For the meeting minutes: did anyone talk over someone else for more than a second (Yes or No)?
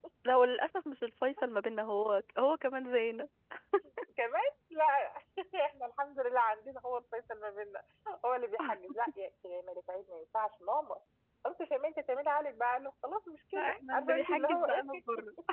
Yes